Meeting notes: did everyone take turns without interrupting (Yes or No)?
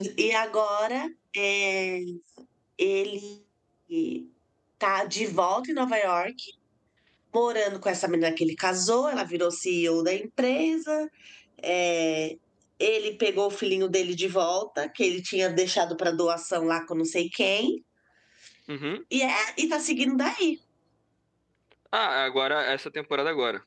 Yes